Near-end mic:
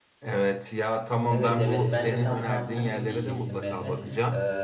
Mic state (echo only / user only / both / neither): both